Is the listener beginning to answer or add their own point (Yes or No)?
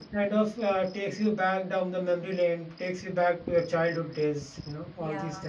Yes